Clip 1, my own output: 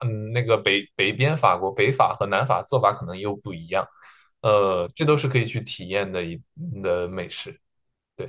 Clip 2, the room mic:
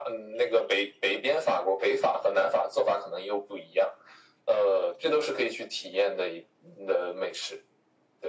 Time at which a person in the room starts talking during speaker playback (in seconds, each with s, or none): none